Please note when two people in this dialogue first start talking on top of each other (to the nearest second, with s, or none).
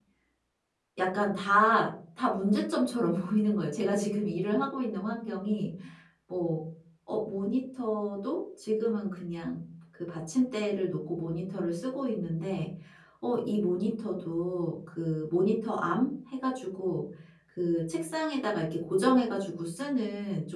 none